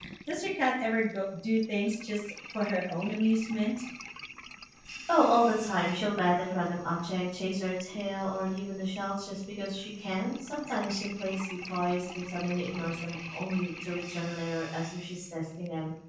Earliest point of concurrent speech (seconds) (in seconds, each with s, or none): none